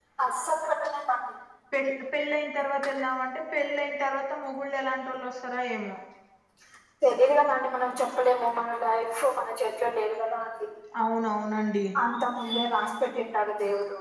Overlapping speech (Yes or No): No